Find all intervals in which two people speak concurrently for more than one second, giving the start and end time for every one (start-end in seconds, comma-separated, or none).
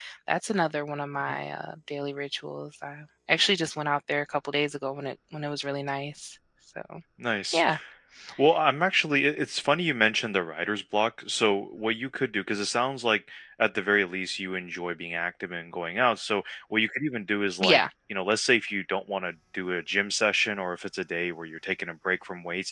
none